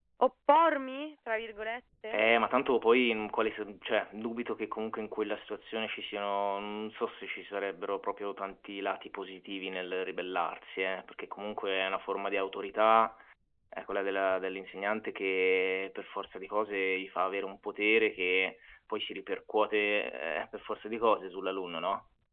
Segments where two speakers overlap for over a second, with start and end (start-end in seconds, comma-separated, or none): none